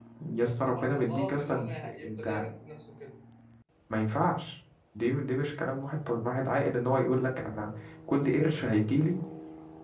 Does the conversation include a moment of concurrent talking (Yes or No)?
Yes